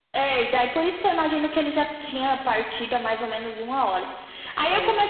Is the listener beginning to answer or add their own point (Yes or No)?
No